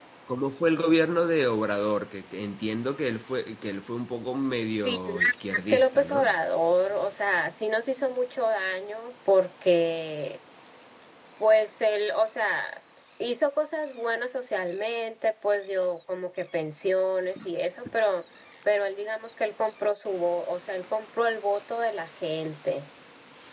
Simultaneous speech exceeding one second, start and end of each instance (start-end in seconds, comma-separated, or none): 4.8-6.3